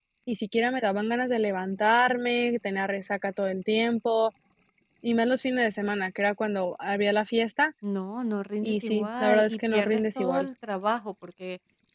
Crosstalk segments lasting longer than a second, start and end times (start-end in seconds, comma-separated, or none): 8.6-10.5